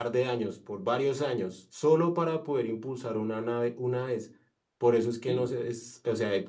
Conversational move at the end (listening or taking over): listening